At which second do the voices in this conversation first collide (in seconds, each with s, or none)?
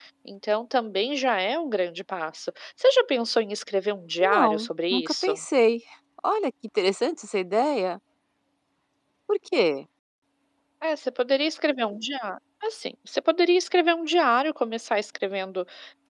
4.2 s